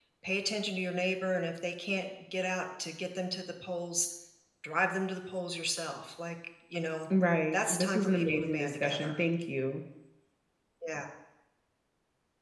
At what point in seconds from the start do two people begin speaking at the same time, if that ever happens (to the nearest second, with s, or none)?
8 s